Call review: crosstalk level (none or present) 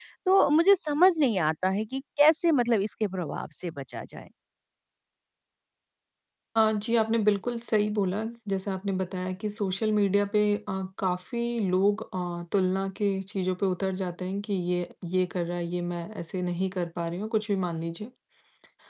none